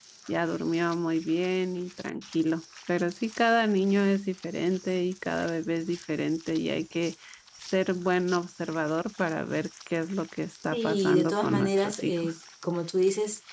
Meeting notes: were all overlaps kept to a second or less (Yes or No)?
No